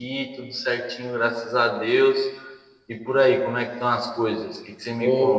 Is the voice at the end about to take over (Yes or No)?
Yes